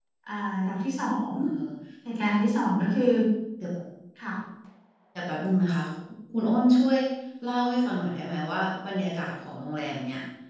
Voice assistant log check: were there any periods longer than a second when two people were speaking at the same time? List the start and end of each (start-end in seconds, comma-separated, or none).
none